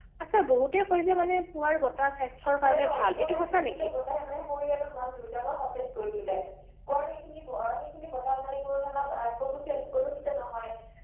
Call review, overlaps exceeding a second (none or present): present